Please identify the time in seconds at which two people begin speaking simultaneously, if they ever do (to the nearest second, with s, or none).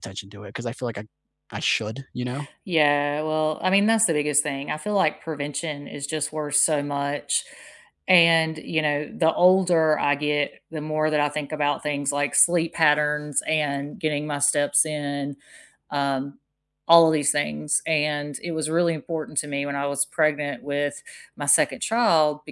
none